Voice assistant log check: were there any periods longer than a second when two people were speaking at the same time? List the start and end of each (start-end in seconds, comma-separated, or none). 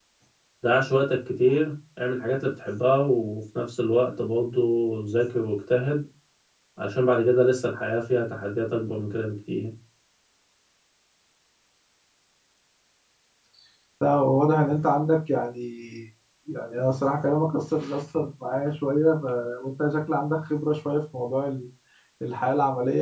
none